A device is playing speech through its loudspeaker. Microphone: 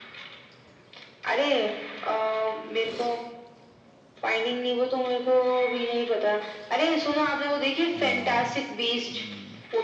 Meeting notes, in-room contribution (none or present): present